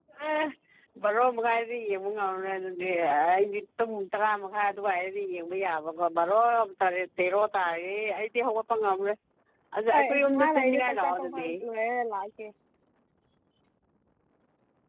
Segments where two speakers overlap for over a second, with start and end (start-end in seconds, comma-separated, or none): 9.9-11.5